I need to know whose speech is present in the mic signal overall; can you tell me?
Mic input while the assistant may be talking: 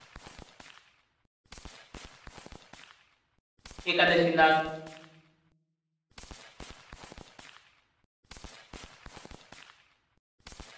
user only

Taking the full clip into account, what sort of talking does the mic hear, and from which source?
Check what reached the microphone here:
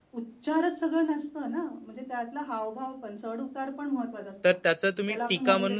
both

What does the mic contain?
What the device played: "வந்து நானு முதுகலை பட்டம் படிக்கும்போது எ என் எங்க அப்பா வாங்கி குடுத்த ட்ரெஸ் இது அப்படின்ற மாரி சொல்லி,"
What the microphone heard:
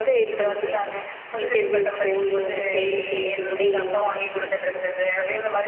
both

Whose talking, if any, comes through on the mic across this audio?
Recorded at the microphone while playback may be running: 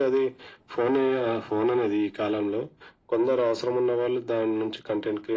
echo only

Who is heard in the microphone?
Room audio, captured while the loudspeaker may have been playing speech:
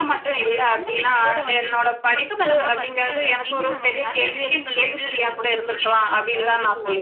echo only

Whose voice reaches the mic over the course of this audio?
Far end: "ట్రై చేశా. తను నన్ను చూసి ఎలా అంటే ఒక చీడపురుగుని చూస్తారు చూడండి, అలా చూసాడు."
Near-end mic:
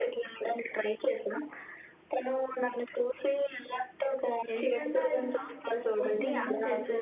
both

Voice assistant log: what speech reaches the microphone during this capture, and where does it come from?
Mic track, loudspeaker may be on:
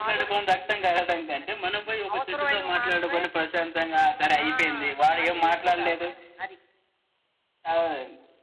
echo only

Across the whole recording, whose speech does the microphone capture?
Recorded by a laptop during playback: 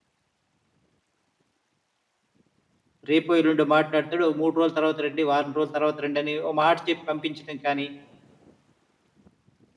user only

